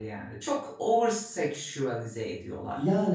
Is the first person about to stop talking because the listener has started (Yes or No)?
Yes